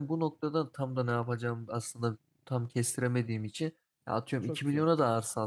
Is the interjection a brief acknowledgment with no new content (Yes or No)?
Yes